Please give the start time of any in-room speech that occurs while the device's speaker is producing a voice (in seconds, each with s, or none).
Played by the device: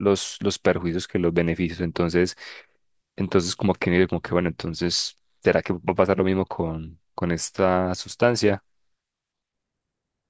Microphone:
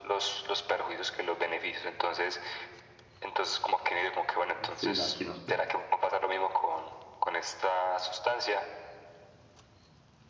4.7 s